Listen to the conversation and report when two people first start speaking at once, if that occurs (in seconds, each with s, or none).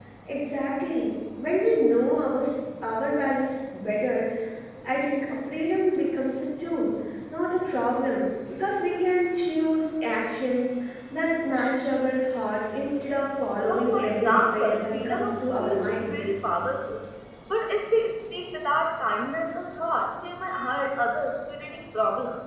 13.7 s